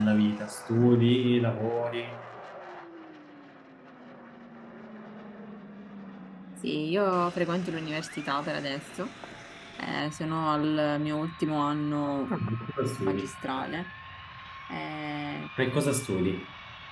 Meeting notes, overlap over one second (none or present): none